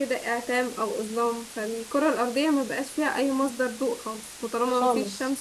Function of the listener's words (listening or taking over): listening